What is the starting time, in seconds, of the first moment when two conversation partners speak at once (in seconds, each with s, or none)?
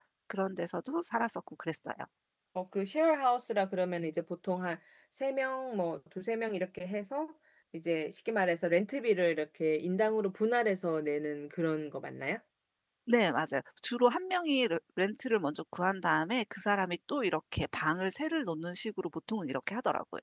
none